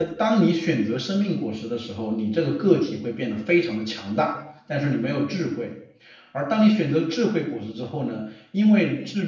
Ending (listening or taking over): listening